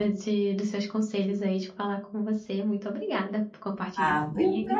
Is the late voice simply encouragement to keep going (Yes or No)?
No